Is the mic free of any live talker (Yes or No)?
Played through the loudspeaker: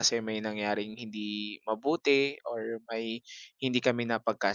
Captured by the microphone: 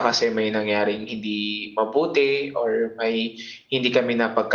Yes